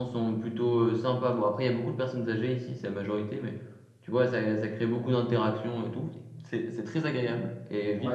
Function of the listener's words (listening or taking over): taking over